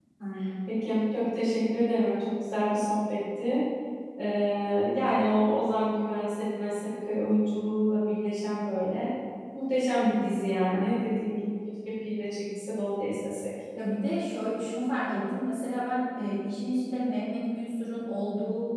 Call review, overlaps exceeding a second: none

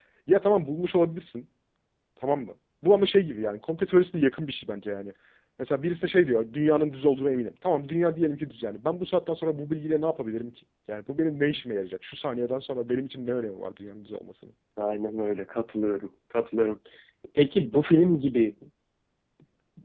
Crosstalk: none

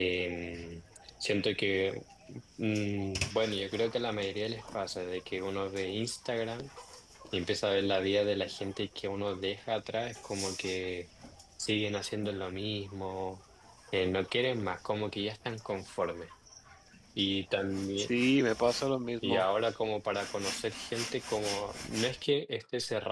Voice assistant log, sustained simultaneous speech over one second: none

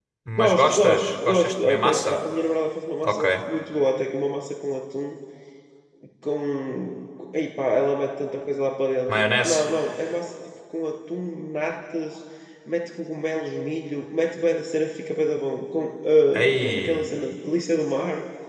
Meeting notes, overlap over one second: present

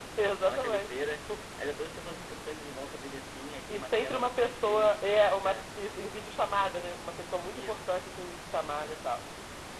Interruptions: present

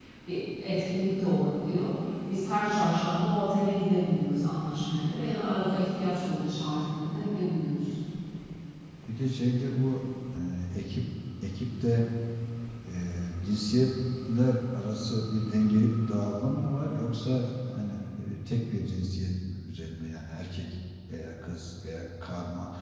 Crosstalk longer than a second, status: none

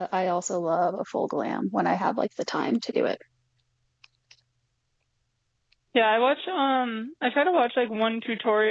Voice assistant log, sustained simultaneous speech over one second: none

